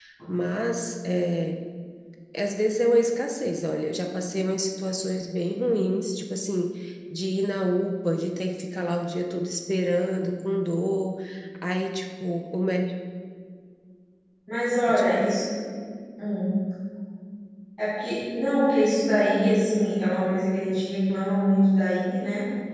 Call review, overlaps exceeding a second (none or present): none